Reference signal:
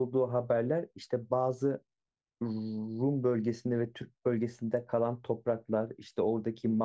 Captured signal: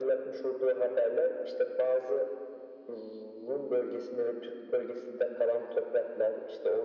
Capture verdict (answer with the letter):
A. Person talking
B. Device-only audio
B